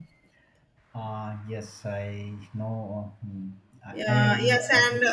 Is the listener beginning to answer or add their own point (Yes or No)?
Yes